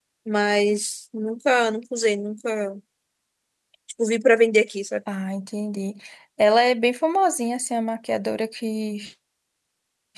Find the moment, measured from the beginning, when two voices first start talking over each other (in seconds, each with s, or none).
none